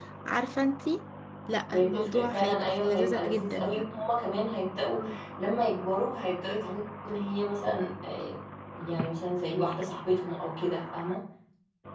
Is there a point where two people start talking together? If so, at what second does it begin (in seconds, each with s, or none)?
1.7 s